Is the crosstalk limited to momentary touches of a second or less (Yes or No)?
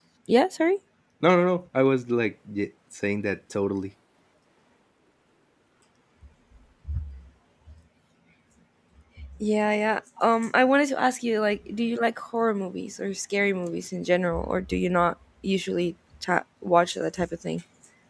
Yes